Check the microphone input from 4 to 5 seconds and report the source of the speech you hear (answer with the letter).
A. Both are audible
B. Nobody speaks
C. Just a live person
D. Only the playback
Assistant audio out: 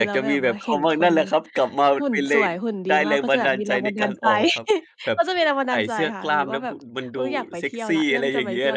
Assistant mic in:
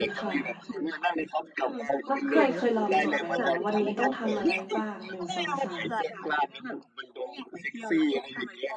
A